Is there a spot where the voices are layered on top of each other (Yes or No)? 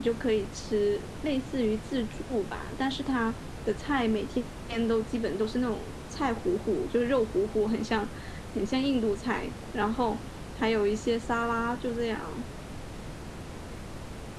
No